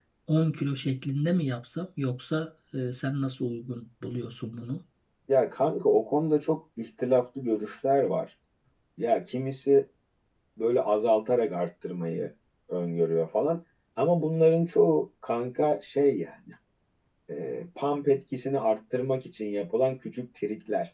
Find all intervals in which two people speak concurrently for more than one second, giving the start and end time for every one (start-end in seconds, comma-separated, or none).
none